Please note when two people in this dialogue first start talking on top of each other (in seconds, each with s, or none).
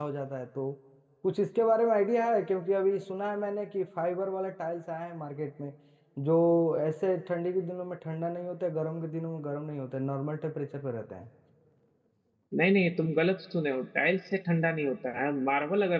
none